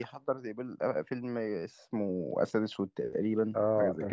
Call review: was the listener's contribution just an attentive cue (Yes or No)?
No